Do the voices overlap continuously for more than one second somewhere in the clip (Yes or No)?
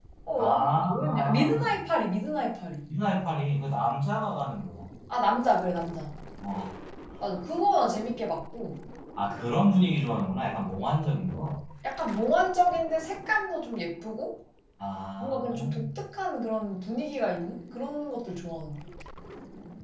Yes